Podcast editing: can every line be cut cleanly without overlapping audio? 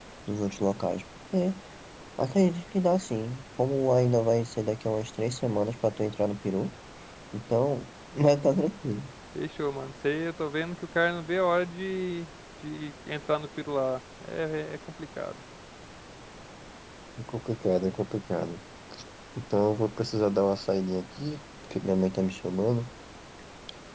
Yes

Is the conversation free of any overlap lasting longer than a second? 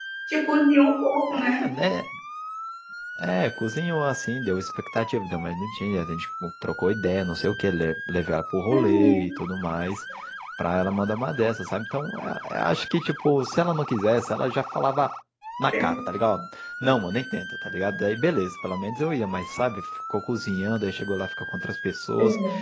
Yes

